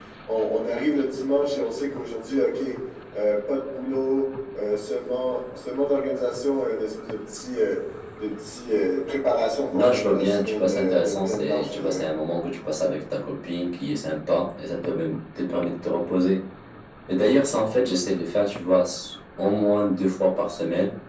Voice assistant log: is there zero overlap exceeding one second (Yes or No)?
No